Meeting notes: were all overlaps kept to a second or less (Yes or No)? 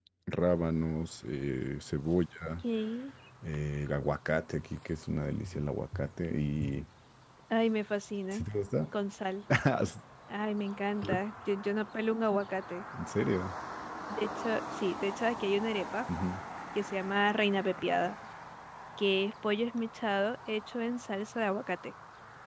Yes